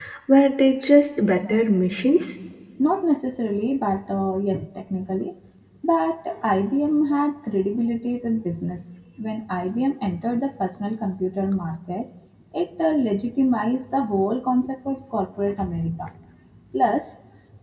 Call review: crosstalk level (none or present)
none